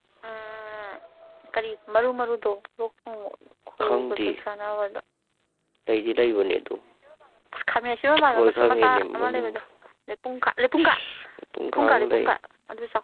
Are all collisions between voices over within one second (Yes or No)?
No